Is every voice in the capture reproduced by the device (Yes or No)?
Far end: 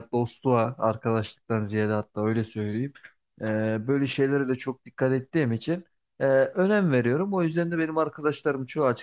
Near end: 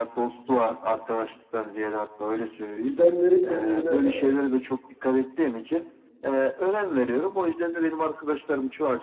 No